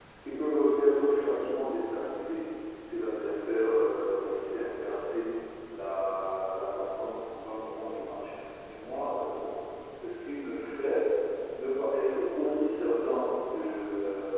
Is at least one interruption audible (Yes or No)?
No